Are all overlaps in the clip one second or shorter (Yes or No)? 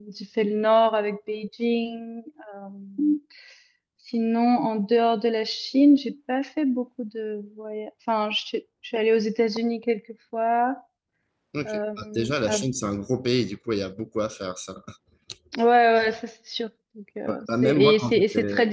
No